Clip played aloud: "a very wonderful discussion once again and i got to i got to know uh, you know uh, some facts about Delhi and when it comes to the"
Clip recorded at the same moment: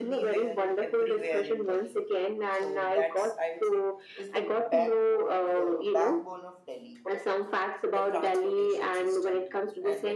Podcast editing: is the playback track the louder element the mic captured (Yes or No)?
Yes